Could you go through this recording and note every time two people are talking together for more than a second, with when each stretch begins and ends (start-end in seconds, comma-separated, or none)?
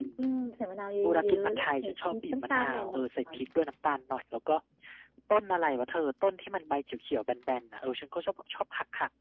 1.0-2.8